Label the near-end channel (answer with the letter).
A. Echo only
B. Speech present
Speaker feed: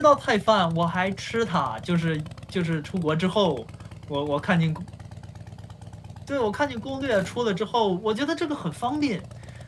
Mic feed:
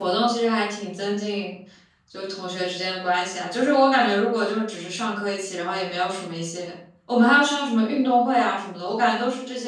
B